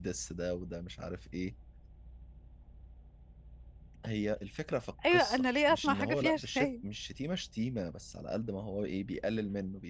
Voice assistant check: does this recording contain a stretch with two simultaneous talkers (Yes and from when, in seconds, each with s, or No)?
Yes, from 5.0 s